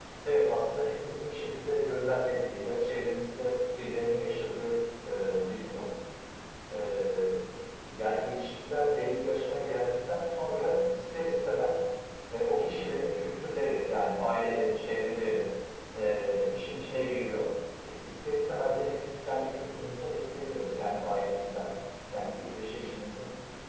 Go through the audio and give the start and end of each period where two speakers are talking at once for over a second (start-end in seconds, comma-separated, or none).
none